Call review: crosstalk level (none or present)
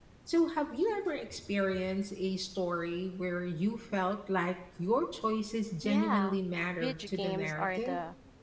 present